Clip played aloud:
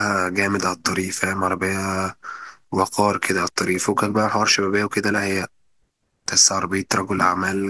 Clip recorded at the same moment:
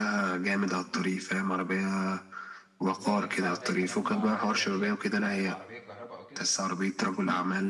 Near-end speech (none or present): present